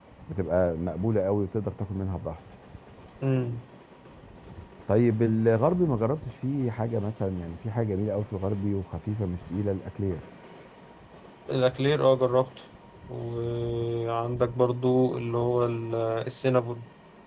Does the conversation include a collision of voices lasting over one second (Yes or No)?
No